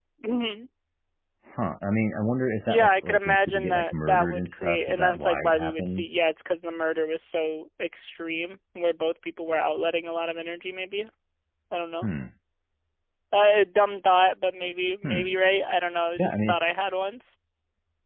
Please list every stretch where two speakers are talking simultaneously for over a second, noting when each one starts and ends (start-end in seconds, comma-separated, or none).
2.7-6.2